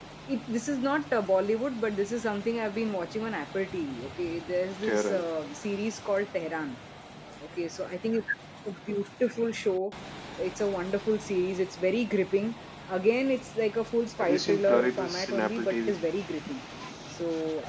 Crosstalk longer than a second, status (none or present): present